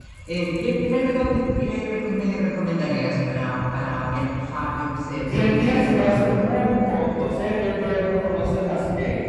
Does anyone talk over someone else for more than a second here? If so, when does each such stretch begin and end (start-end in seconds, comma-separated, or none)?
5.1-6.5